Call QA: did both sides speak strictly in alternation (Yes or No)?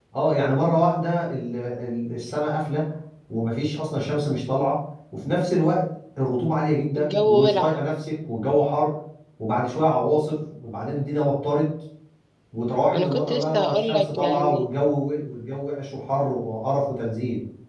No